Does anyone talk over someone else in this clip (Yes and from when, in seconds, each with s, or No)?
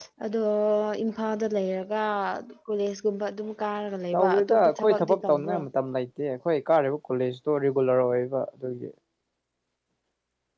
Yes, from 4.1 s